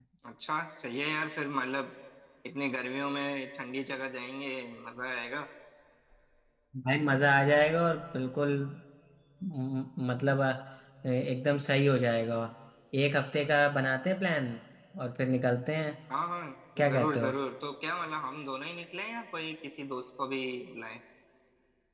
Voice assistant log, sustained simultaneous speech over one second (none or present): none